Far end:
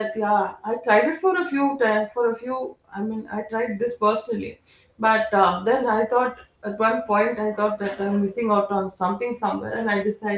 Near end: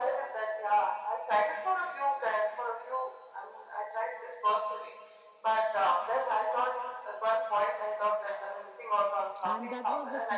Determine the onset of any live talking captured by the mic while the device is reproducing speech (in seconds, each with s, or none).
9.4 s